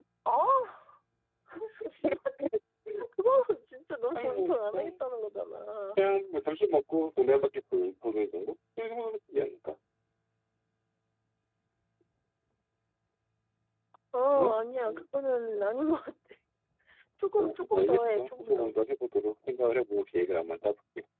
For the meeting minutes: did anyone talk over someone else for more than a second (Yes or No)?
Yes